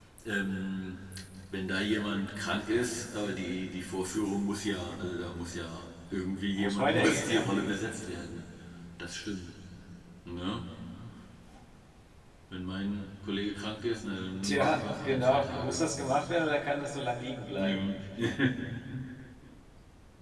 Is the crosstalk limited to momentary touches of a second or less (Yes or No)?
No